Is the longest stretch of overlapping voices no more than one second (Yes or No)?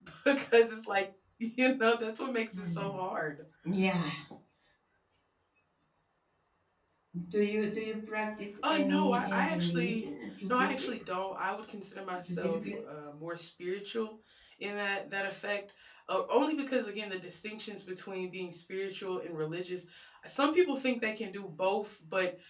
No